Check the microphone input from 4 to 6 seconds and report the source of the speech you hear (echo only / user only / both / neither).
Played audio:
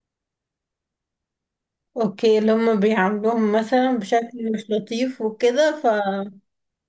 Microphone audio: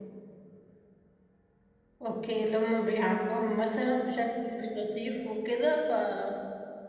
echo only